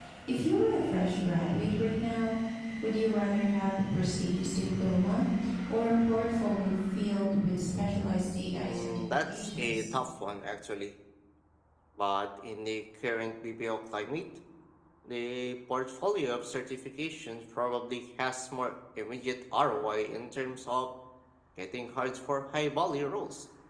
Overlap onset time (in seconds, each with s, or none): 8.6 s